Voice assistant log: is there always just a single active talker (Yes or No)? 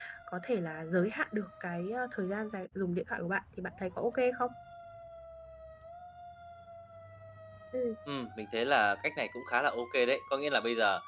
Yes